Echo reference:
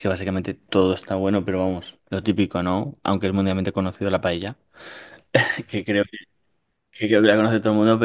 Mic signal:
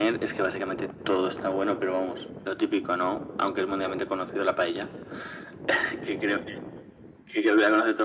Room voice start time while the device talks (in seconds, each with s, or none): none